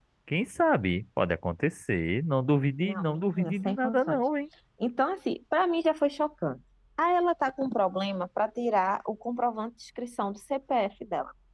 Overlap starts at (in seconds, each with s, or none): 2.8 s